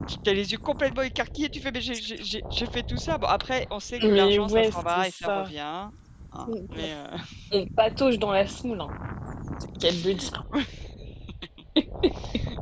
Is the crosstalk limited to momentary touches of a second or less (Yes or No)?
No